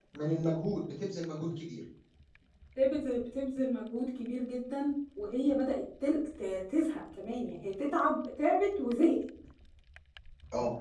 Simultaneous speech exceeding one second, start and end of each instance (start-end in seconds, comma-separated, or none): none